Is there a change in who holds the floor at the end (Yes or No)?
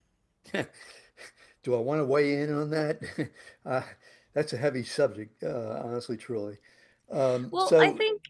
Yes